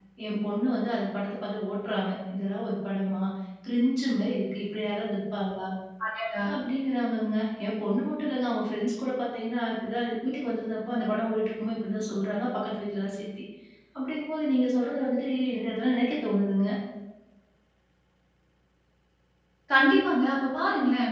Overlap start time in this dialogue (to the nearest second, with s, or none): none